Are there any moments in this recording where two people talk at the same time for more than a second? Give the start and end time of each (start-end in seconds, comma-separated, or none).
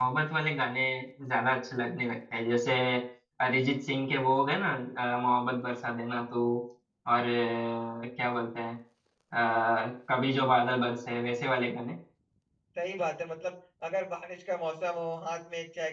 none